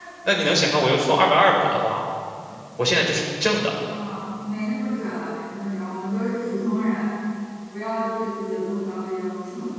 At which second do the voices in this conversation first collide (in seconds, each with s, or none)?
none